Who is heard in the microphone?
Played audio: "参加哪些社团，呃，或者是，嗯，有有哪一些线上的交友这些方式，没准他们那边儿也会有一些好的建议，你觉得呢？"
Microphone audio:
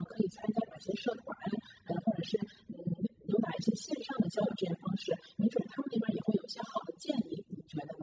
echo only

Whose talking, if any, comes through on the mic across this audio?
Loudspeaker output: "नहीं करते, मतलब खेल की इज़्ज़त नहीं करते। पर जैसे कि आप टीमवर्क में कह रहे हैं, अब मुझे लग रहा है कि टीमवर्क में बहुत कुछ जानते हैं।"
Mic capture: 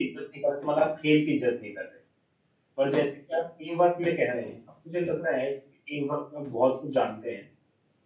echo only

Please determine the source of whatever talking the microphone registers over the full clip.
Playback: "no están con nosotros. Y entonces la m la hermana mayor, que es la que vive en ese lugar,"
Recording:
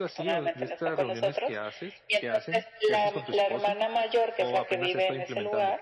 both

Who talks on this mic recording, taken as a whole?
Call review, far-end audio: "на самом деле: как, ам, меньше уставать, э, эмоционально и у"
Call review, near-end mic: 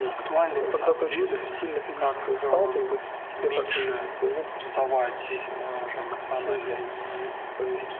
both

